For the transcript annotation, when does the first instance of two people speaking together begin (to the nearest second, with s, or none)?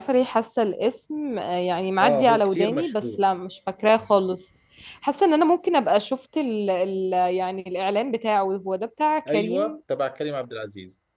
2 s